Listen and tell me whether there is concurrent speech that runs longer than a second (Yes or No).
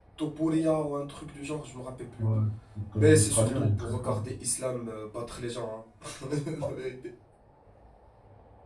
Yes